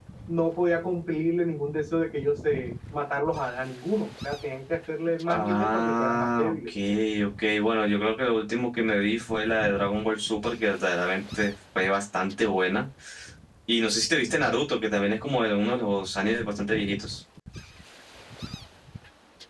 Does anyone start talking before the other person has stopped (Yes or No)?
Yes